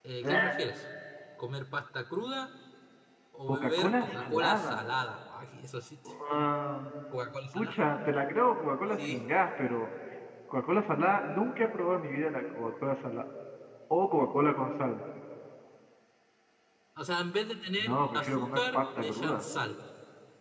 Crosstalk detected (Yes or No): Yes